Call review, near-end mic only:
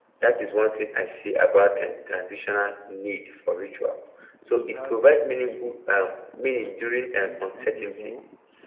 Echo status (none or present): present